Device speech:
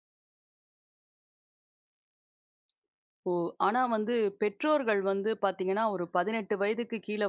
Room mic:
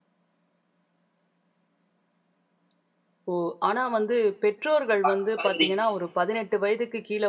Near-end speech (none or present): present